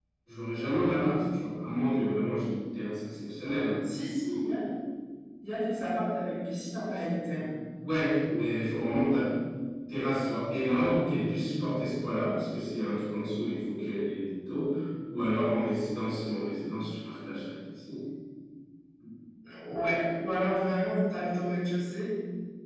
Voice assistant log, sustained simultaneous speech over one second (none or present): none